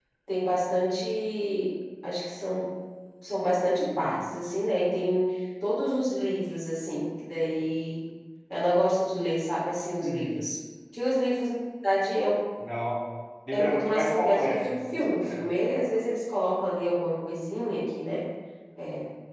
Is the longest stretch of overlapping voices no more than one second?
No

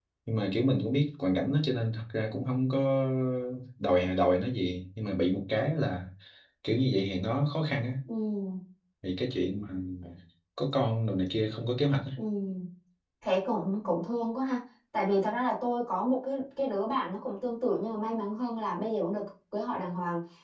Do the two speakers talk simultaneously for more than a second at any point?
No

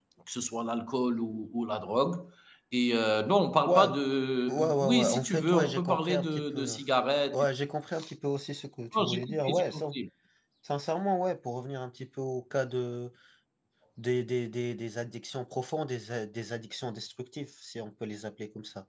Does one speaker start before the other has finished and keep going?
Yes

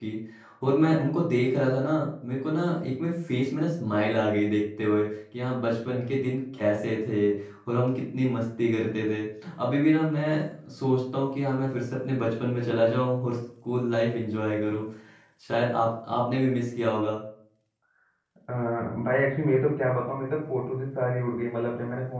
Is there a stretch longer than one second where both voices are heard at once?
No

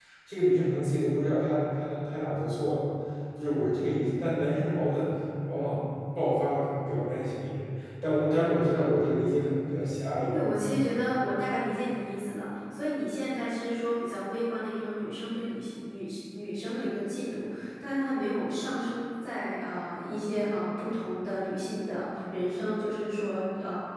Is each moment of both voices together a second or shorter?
Yes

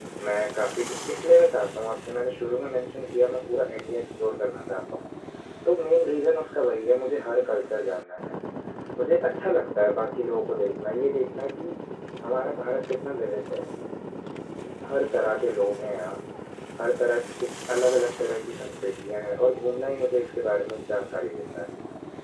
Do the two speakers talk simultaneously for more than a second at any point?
No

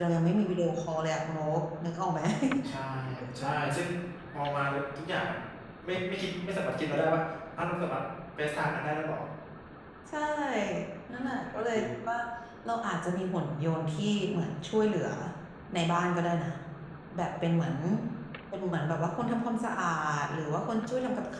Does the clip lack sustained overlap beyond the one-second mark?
Yes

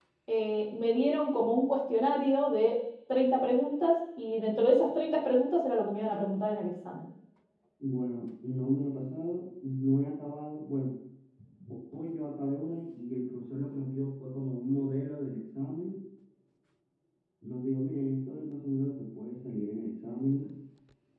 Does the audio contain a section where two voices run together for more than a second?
No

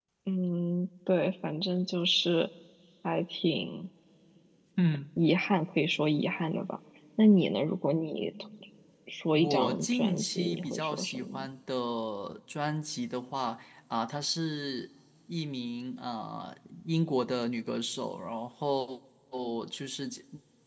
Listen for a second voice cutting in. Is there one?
Yes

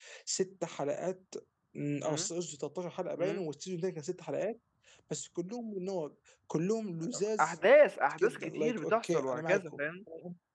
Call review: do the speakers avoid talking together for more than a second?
No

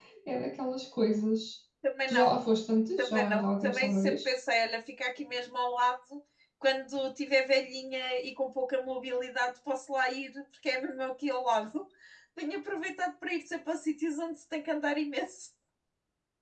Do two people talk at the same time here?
Yes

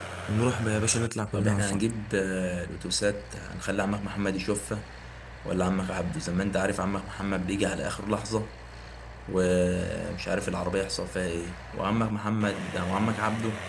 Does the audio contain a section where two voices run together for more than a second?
No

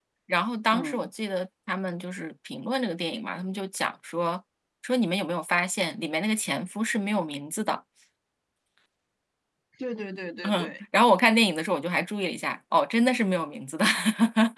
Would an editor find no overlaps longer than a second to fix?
Yes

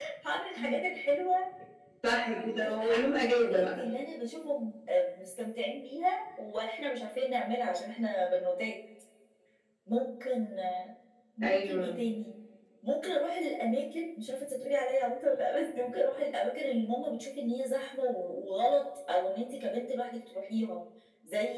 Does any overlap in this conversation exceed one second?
Yes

